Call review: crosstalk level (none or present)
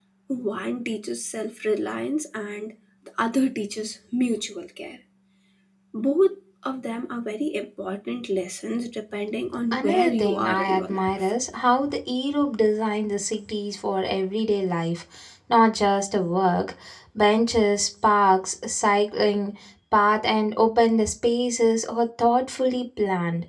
present